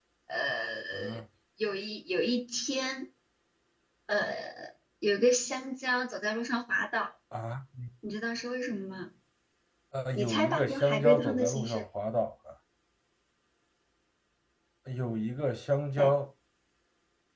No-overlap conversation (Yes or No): No